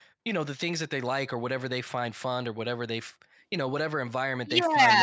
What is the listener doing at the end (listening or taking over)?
listening